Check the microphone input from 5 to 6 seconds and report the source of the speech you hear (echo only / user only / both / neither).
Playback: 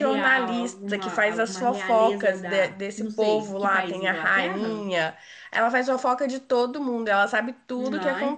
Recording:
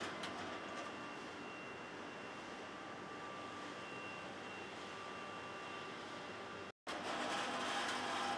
neither